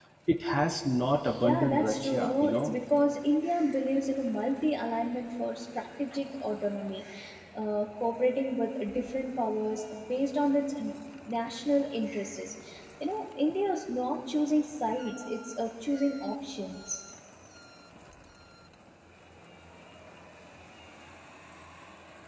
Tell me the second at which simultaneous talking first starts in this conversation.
1.4 s

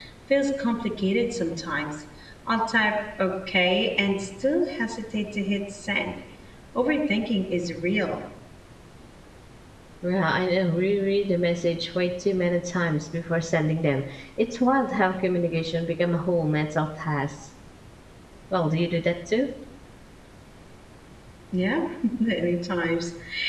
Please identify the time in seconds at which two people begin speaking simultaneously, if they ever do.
none

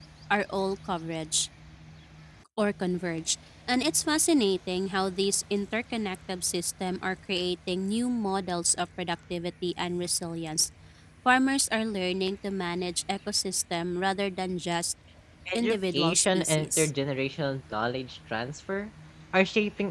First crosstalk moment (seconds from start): 15.5 s

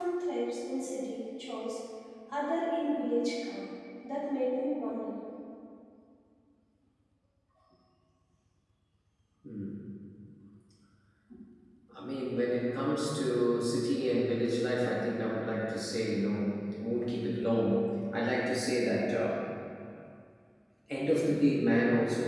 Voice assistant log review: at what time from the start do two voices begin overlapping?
none

